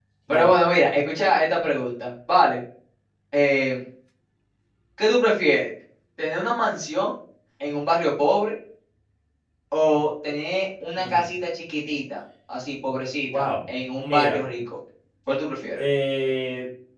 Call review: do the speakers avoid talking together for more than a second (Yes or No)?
Yes